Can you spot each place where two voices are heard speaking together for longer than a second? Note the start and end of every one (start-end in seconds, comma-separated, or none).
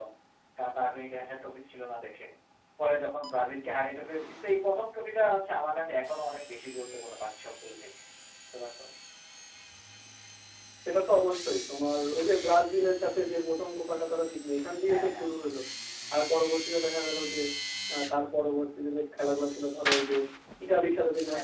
none